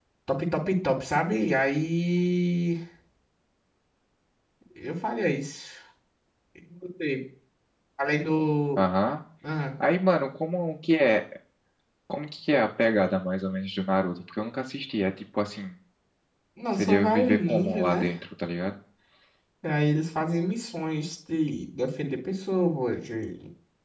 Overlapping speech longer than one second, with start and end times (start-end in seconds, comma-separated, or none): 16.7-18.1